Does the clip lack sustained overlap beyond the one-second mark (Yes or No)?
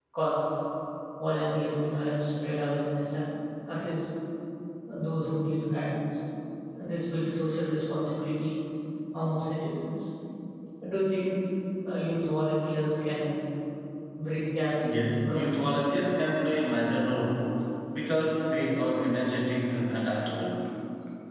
No